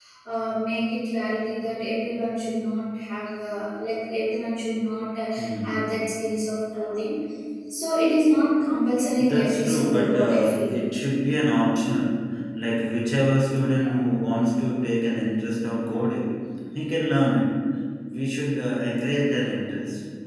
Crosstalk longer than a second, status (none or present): present